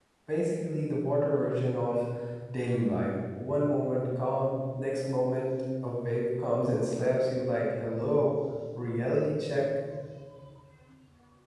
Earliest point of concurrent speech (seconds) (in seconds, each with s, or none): none